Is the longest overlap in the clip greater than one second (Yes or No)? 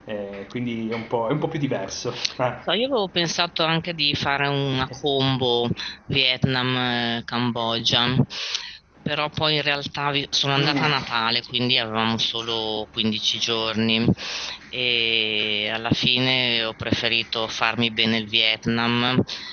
No